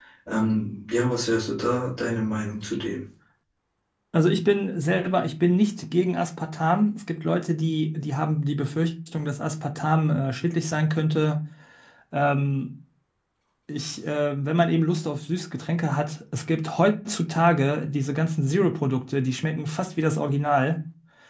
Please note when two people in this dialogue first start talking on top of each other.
none

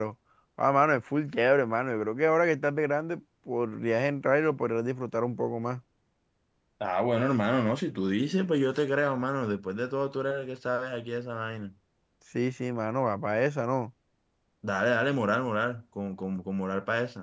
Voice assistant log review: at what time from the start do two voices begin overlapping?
none

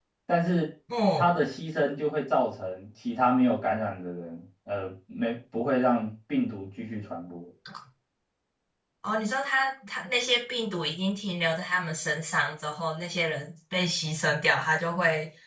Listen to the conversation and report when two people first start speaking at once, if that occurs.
none

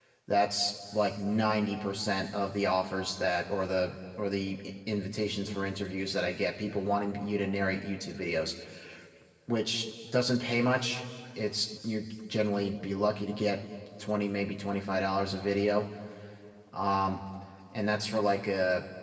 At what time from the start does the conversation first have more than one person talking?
none

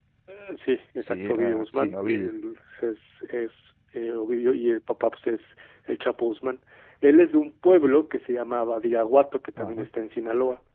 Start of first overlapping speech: 1.0 s

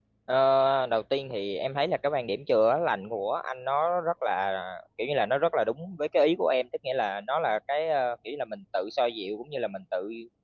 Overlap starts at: none

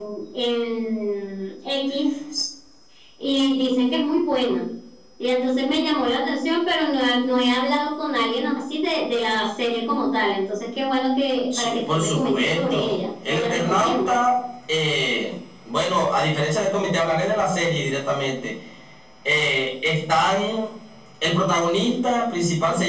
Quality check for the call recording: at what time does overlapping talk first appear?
11.5 s

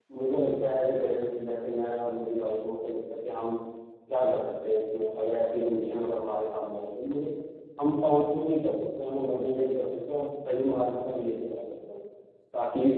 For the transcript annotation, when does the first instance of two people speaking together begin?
none

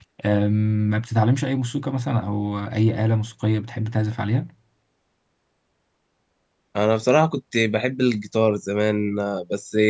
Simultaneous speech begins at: none

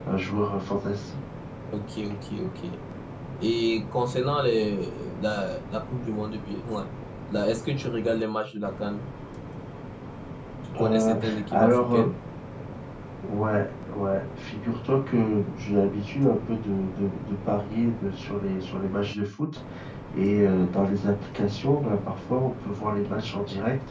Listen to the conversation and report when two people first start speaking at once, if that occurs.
10.8 s

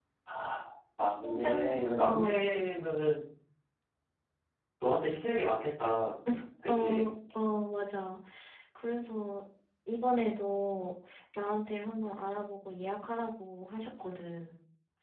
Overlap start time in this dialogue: 1.2 s

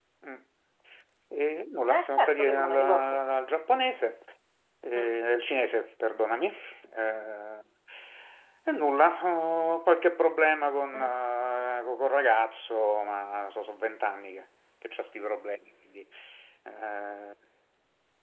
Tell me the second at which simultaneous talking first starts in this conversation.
1.9 s

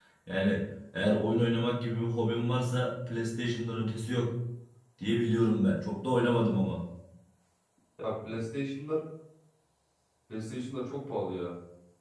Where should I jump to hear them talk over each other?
none

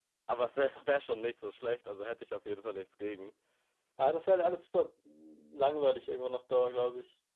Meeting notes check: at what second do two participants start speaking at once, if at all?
none

